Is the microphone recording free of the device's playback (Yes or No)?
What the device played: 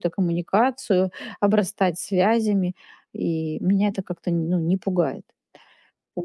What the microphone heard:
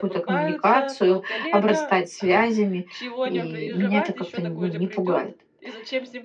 No